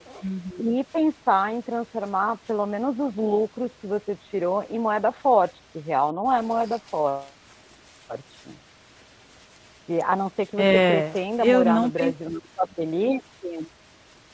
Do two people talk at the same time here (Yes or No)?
Yes